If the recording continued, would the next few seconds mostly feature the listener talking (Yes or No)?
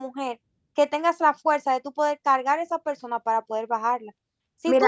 No